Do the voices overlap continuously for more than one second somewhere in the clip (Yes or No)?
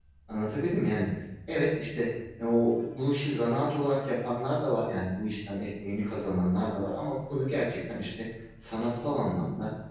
No